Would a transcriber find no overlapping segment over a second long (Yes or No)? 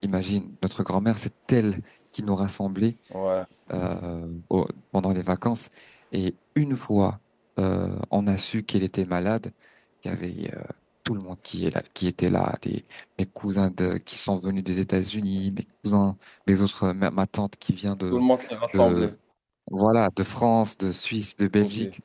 Yes